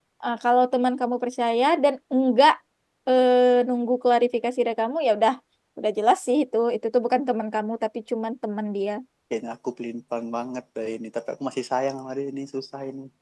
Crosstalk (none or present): none